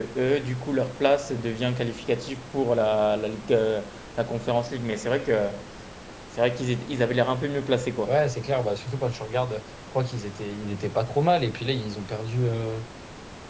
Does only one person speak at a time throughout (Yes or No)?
Yes